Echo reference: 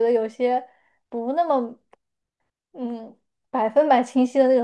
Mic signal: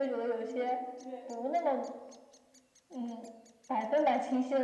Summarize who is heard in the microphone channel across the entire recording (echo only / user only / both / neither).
both